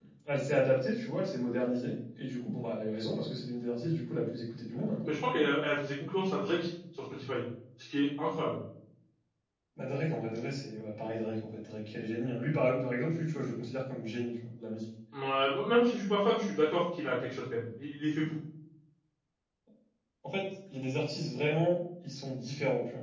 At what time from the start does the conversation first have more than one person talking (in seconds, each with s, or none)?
none